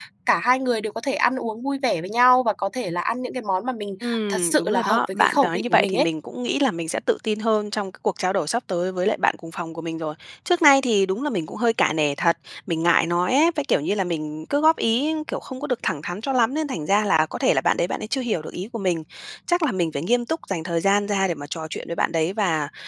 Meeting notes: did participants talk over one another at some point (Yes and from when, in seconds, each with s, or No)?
Yes, from 4.0 s